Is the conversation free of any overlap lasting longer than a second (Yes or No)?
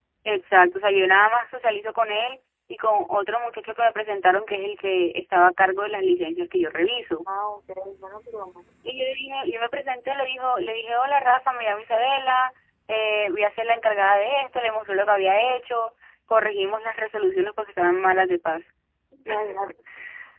Yes